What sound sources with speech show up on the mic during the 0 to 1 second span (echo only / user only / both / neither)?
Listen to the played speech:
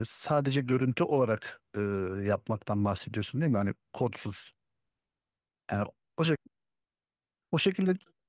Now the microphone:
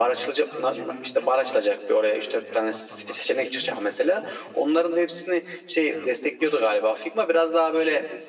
both